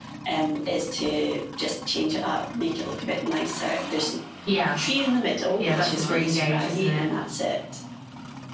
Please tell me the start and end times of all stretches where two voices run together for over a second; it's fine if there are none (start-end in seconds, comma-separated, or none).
5.6-7.1